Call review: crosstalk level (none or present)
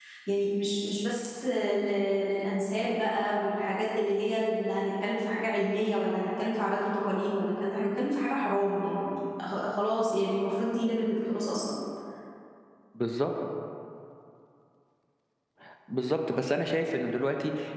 none